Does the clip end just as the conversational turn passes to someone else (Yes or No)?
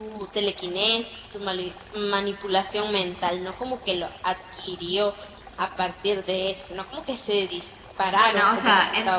Yes